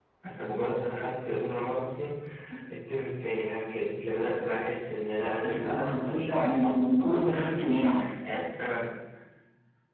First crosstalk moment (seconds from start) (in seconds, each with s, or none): 5.4 s